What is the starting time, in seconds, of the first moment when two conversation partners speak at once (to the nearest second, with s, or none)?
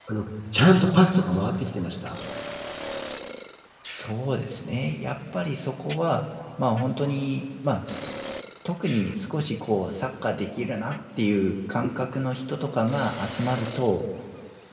none